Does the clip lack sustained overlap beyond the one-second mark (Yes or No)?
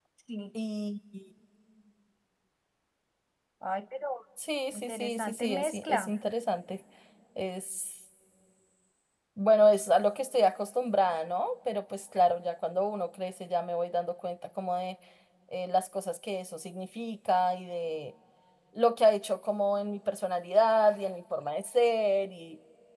No